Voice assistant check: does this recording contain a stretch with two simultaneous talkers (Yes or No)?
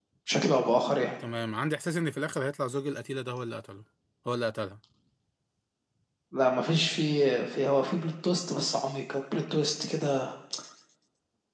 No